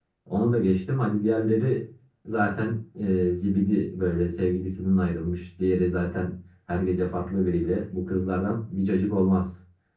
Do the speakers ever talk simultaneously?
No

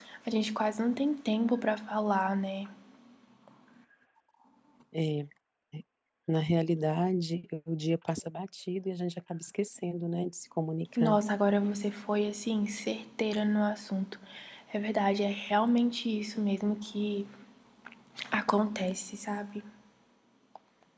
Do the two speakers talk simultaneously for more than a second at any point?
No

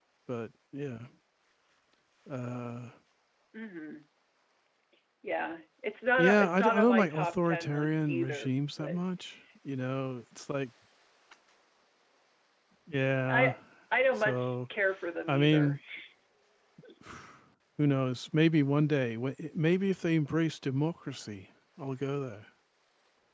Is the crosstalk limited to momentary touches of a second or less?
No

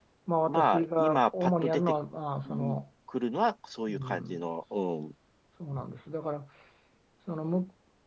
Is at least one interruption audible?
Yes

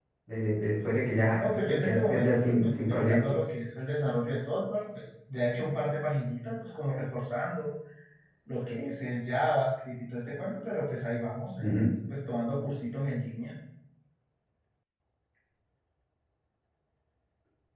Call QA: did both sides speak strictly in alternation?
No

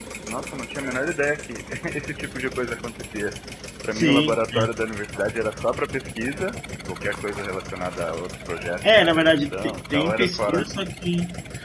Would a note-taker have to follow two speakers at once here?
Yes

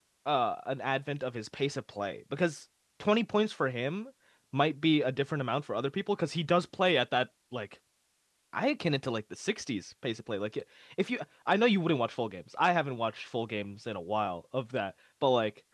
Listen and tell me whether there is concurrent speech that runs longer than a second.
No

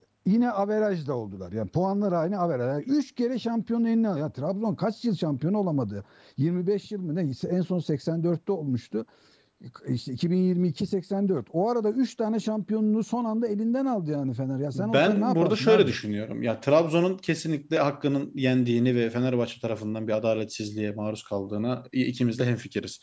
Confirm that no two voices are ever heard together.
No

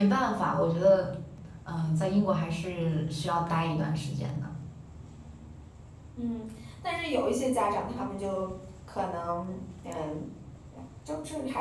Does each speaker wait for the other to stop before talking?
Yes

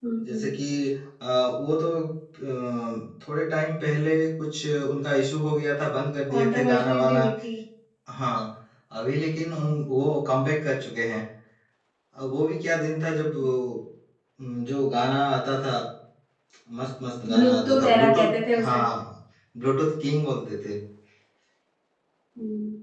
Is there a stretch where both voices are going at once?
Yes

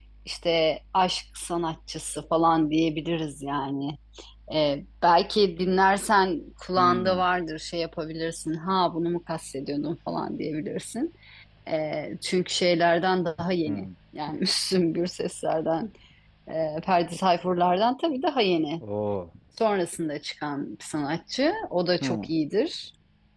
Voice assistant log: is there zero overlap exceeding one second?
Yes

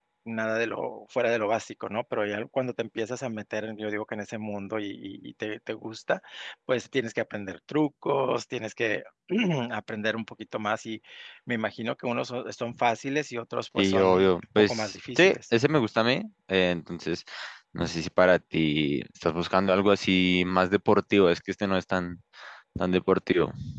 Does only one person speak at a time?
No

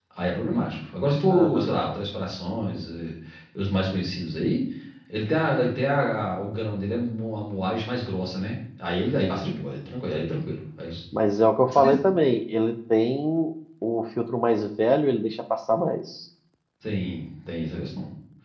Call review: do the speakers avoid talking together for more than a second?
Yes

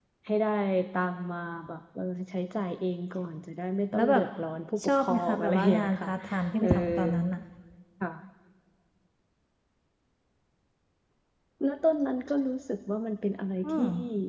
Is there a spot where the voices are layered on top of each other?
Yes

